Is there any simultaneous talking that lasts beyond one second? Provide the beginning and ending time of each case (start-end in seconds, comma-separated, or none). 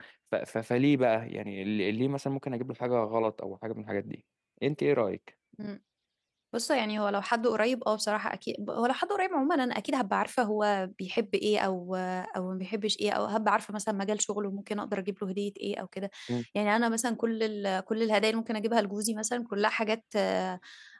none